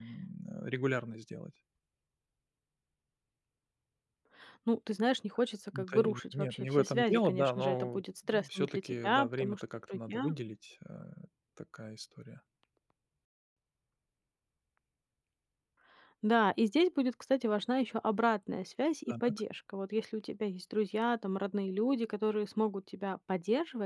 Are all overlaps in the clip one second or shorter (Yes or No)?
No